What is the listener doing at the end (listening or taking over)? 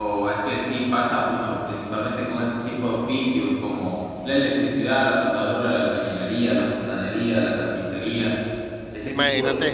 taking over